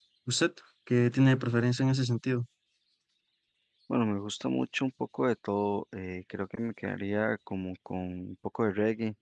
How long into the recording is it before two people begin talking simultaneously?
none

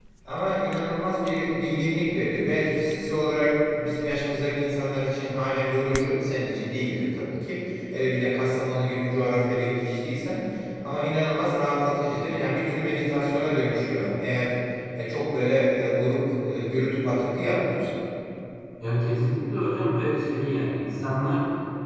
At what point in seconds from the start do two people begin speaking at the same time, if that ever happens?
none

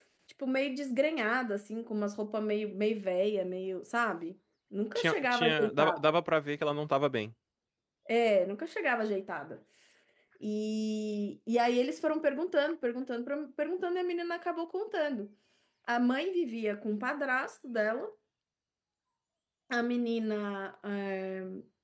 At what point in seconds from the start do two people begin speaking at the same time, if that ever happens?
5 s

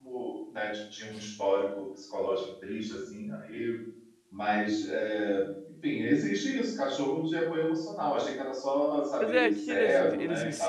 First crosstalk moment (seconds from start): 9 s

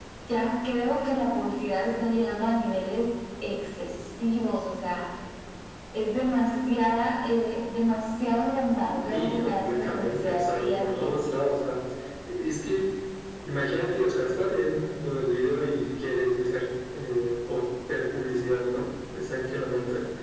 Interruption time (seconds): 9 s

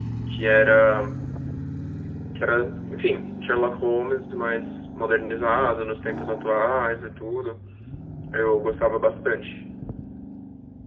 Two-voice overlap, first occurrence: none

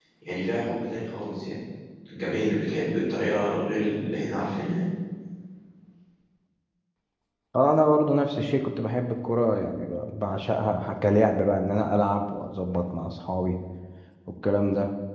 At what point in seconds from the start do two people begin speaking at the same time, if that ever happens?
none

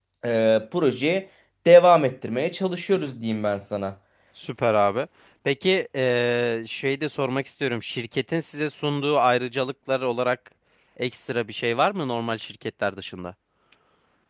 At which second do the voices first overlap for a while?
none

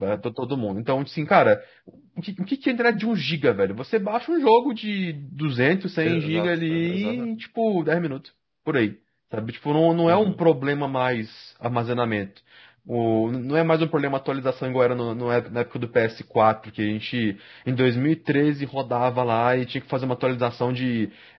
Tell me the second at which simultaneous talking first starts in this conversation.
6 s

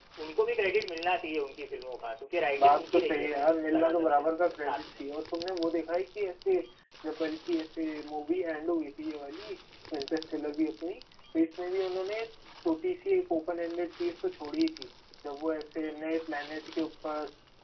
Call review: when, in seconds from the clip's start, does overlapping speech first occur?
3 s

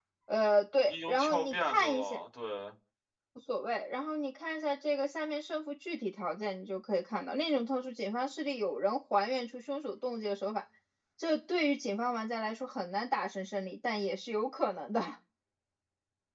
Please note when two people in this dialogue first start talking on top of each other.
1 s

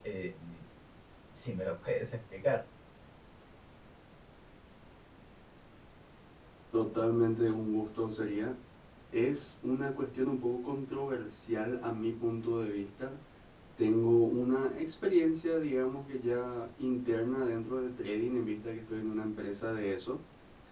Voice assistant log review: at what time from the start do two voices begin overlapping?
none

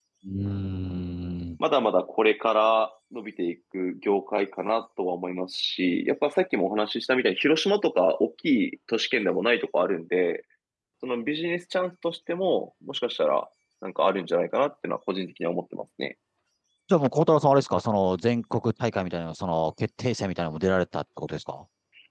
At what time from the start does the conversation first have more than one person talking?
none

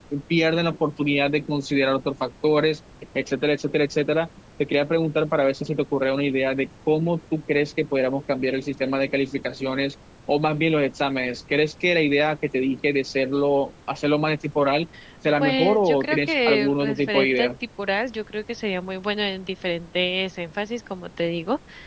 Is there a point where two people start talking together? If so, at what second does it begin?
15 s

